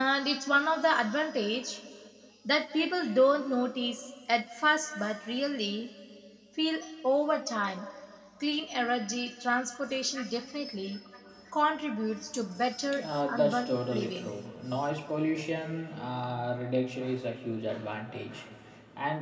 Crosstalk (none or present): present